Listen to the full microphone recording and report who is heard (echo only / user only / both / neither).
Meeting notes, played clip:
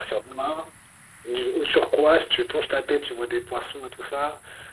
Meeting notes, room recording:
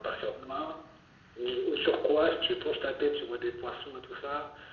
echo only